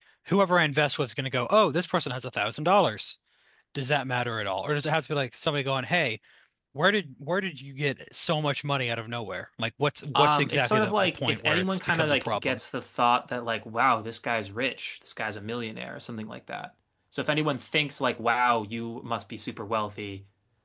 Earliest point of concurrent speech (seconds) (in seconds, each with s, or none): 10.1 s